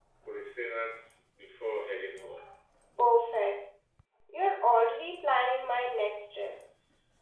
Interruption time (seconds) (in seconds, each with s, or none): none